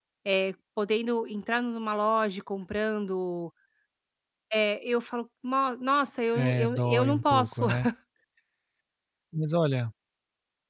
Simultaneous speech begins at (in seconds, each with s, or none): 6.3 s